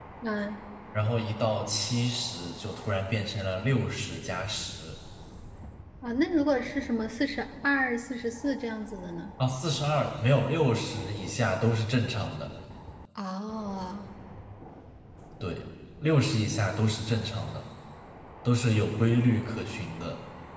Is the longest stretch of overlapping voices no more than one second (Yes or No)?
Yes